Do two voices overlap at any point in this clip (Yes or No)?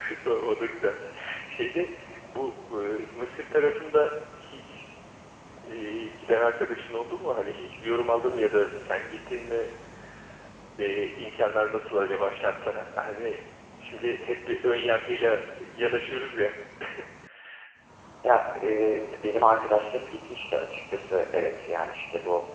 No